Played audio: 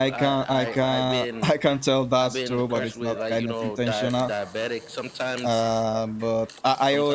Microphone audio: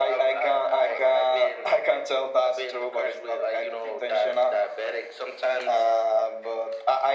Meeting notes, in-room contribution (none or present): none